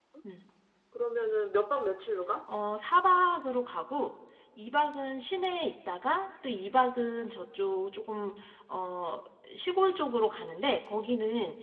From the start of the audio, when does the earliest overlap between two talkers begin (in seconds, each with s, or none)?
none